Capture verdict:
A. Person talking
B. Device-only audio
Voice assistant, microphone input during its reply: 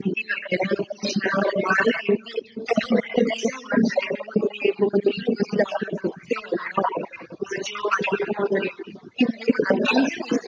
B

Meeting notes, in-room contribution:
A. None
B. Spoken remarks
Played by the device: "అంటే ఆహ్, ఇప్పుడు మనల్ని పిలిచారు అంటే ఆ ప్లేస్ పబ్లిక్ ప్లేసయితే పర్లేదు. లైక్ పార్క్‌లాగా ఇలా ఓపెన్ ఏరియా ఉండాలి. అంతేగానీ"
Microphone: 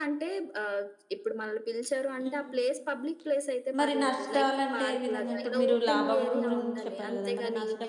B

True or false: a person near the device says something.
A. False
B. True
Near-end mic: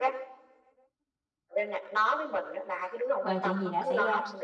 B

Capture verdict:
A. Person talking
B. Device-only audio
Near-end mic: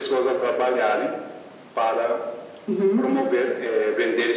A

